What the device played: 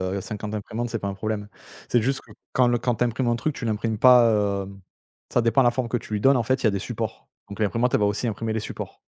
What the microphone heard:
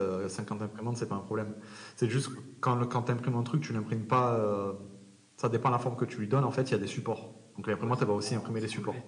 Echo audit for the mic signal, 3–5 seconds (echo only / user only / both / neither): echo only